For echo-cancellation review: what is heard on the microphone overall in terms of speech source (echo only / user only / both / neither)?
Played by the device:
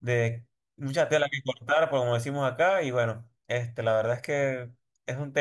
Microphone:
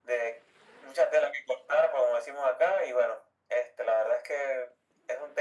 echo only